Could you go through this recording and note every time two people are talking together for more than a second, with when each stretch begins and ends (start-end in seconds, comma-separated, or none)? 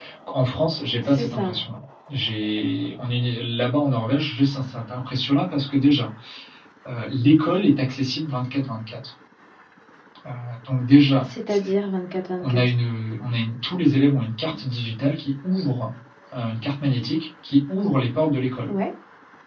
none